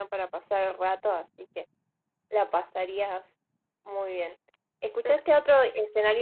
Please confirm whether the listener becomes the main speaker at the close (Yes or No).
No